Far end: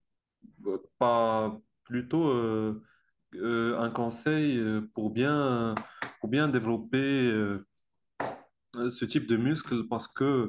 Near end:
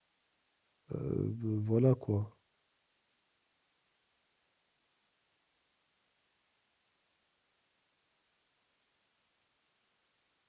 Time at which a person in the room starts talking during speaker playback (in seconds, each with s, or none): 0.9 s